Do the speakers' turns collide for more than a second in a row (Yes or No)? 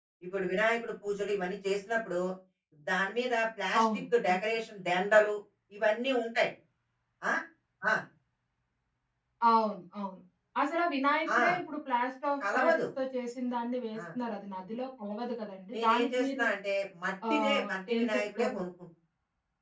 Yes